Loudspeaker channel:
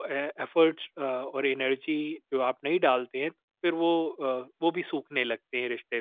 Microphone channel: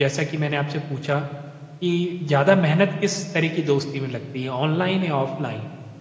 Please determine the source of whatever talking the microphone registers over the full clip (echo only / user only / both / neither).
user only